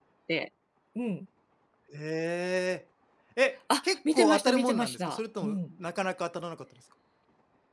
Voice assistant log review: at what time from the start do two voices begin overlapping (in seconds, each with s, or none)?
3.8 s